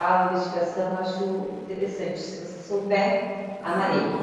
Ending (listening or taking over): taking over